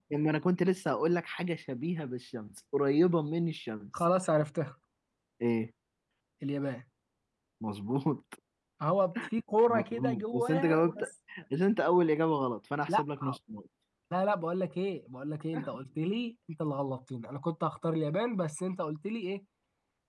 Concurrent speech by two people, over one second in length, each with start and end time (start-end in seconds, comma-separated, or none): 9.7-11.0